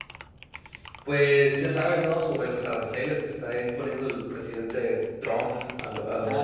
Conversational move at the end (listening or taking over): taking over